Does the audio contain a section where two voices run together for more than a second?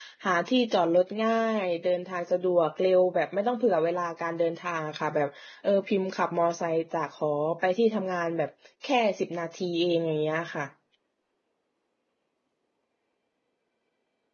No

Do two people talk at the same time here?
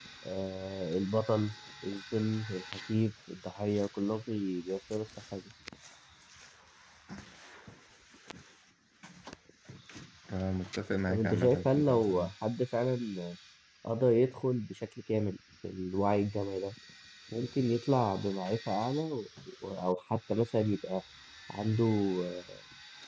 Yes, from 11.1 s

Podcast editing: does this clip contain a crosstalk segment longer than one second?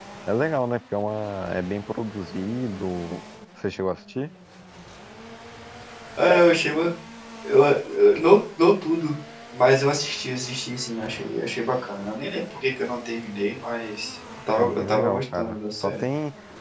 Yes, from 14.6 s

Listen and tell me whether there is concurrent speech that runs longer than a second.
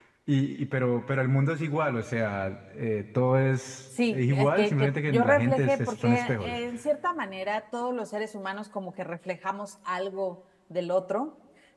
Yes, from 4.1 s

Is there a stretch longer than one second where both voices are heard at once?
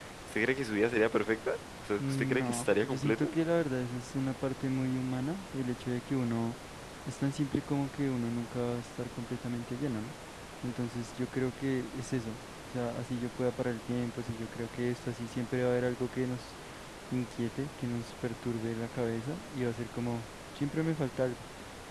Yes, from 2.0 s

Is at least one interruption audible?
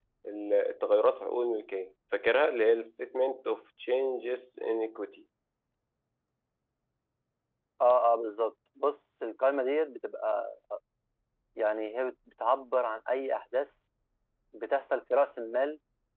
No

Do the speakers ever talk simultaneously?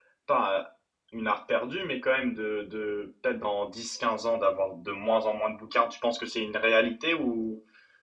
No

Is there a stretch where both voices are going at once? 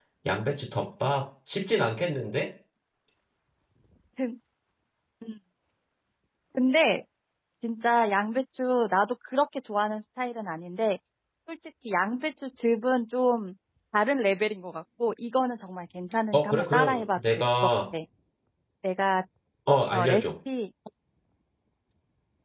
Yes, from 16.3 s

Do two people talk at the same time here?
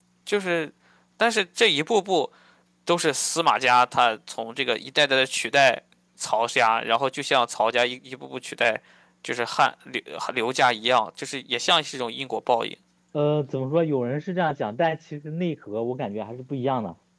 No

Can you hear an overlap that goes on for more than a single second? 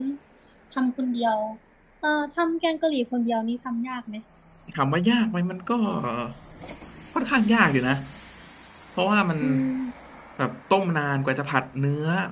No

